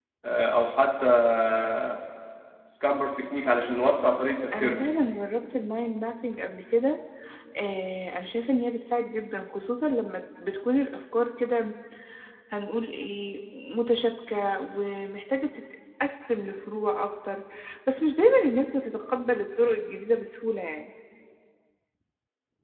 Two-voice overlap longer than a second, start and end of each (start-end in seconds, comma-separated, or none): none